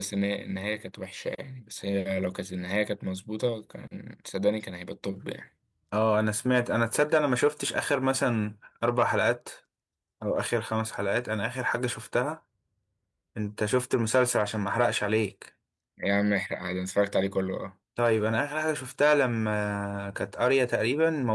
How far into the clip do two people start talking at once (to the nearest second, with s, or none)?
none